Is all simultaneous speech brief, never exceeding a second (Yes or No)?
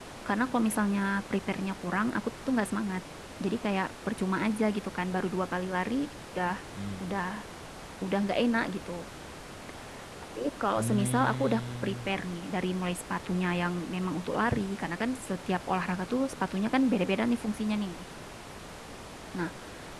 No